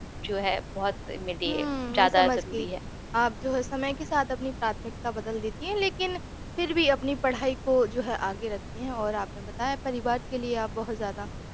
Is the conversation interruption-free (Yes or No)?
No